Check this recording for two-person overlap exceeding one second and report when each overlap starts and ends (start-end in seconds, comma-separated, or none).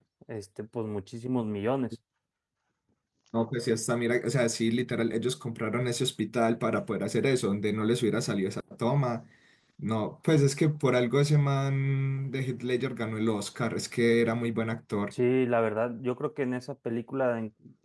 none